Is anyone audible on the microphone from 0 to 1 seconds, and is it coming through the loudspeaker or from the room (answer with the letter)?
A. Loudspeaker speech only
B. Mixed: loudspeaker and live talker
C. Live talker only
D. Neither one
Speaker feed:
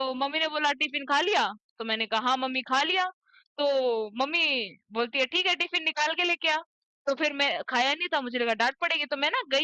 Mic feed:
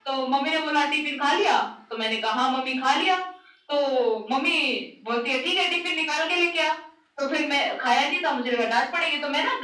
A